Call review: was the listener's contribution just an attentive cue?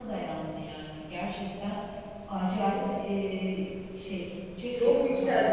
No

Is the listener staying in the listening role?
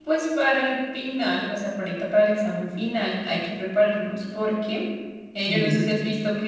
Yes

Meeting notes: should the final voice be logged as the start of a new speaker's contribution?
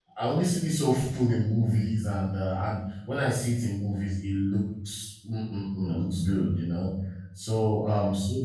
No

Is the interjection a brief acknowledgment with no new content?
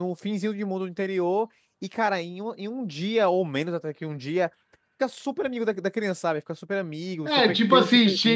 No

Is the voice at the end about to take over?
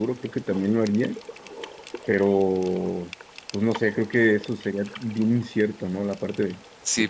Yes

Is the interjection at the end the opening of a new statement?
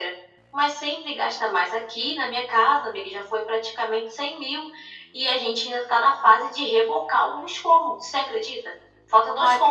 No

